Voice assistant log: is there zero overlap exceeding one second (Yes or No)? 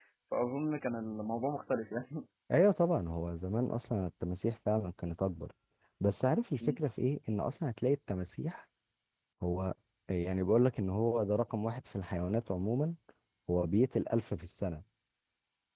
Yes